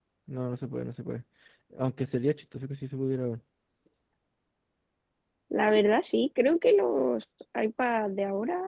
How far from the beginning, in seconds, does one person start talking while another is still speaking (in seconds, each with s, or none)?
none